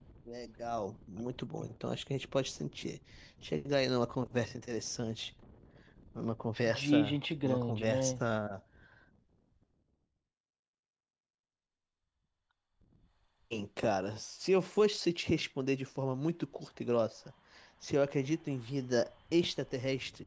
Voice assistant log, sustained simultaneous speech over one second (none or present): present